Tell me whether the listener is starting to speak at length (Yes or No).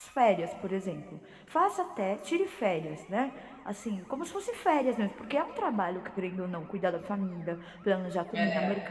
No